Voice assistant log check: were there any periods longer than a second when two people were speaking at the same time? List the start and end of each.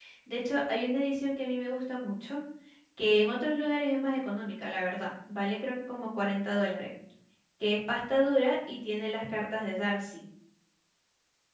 none

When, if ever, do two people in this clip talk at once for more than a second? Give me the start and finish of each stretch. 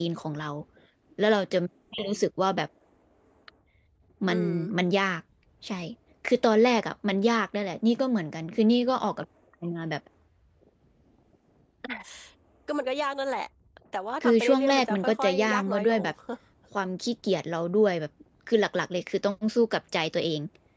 14.2-16.0

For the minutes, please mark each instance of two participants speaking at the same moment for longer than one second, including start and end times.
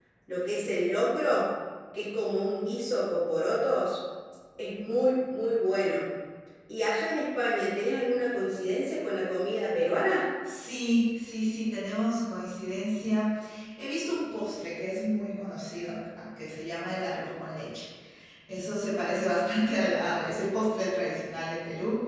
none

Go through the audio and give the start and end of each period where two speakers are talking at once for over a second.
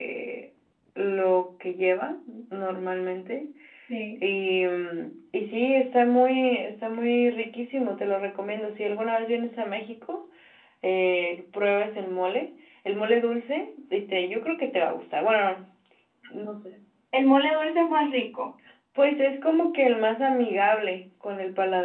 none

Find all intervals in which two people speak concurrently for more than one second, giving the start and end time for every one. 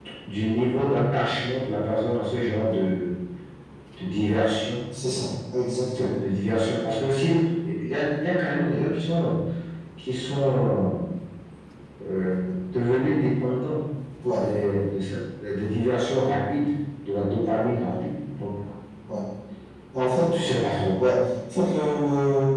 none

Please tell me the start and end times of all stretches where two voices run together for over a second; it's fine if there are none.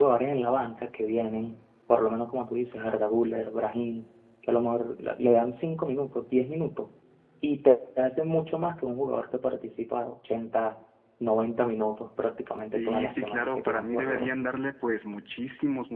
12.7-14.4

